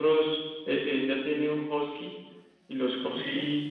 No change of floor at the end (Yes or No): Yes